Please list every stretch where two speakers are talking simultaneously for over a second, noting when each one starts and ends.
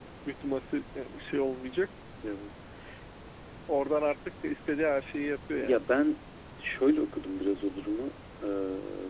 none

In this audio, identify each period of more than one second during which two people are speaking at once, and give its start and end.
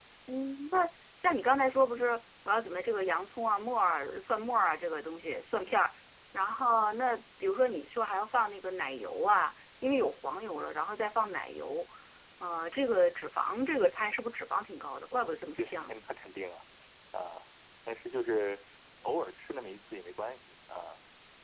none

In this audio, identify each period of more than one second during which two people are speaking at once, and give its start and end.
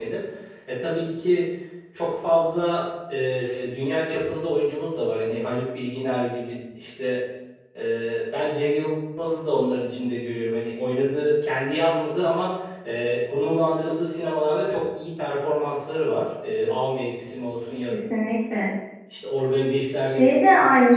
none

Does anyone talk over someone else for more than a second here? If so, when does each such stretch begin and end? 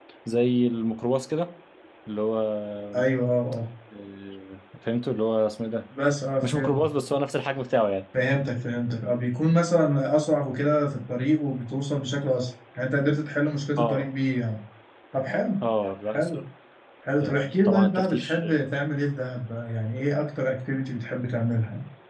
17.2-18.4

